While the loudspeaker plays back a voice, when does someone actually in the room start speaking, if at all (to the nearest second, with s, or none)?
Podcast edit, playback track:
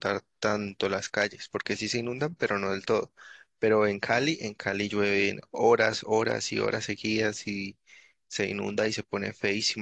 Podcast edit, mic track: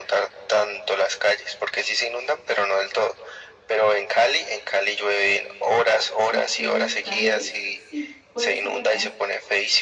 6 s